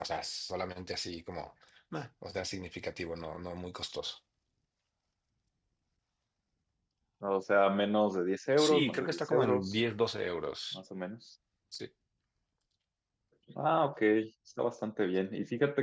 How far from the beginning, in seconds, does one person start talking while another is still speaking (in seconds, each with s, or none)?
8.6 s